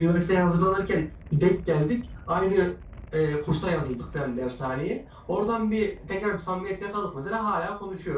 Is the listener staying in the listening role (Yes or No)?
No